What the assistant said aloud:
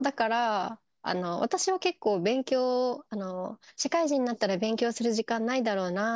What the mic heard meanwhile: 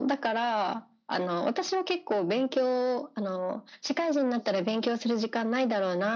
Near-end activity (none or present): none